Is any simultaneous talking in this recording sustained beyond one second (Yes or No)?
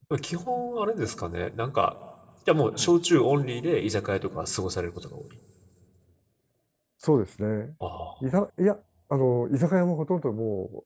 No